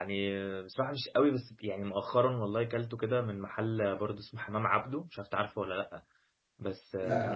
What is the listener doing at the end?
listening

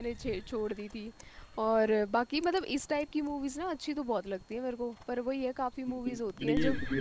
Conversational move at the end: taking over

